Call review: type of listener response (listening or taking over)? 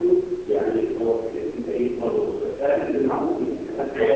taking over